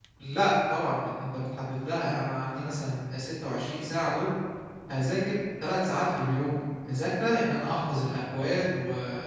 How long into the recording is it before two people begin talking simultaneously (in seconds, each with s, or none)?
none